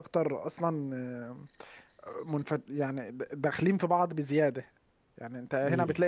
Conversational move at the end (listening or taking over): listening